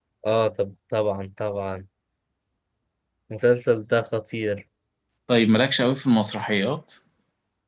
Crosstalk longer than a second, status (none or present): none